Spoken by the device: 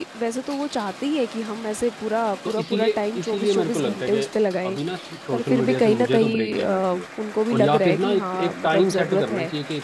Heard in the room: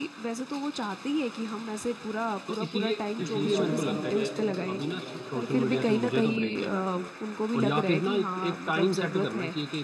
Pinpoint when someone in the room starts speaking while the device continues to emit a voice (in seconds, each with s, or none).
3.2 s